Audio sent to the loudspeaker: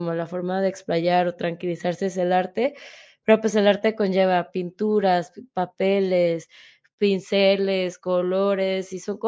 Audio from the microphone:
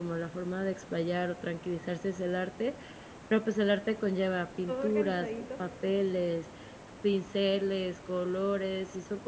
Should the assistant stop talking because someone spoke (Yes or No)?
Yes